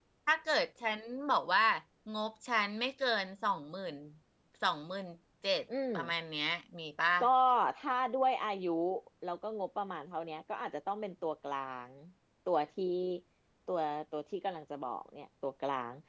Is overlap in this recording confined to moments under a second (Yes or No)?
Yes